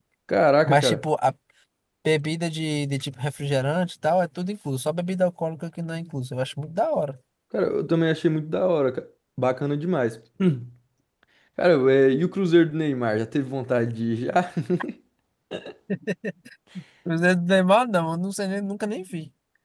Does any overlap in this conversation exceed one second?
No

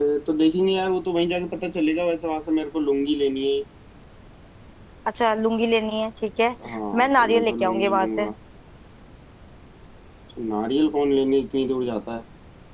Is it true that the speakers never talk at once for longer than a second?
No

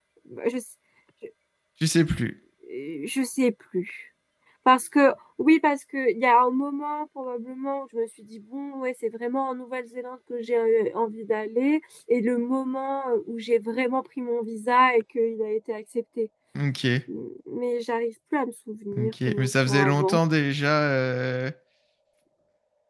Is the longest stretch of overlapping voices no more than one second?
No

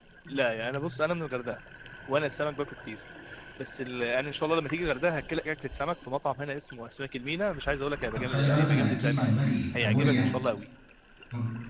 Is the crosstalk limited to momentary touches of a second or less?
No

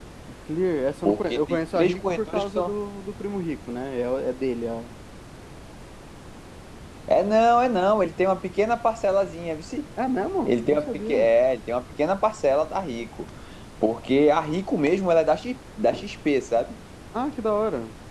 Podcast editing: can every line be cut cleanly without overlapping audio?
No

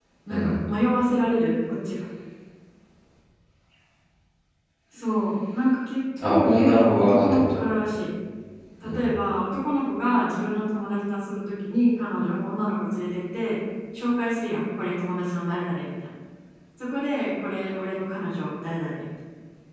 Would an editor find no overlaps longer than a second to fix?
No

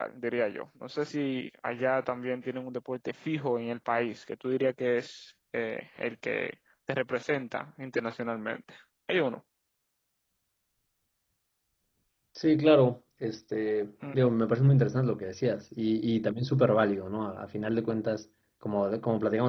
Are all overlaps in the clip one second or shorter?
Yes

